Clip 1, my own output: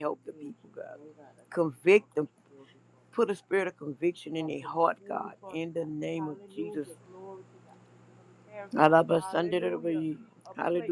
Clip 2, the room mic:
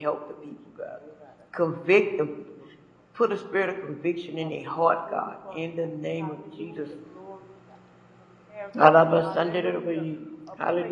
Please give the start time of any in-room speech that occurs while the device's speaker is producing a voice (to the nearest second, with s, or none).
none